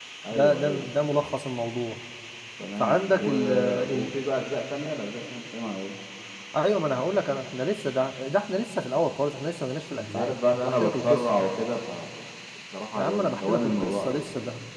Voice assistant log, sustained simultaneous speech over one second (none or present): present